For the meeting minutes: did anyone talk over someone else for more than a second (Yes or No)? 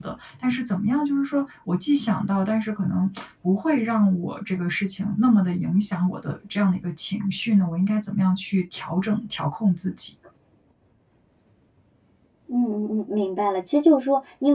No